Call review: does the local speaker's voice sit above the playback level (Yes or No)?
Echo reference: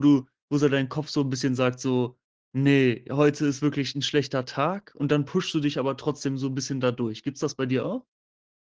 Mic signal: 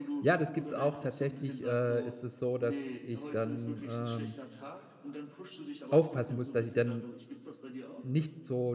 Yes